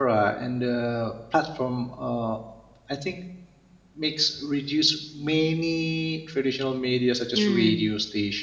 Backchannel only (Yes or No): Yes